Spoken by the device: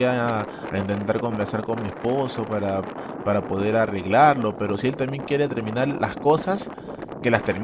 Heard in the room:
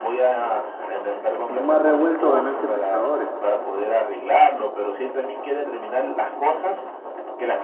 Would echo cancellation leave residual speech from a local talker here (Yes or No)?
Yes